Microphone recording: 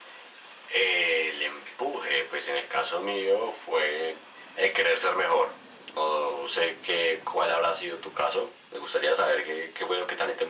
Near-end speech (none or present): none